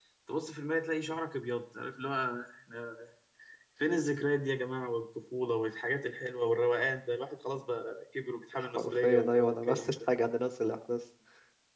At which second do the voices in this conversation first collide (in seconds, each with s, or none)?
8.5 s